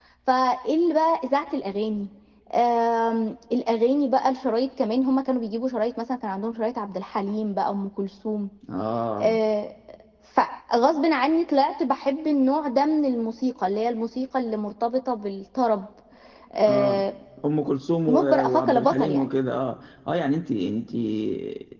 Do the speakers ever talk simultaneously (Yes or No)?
Yes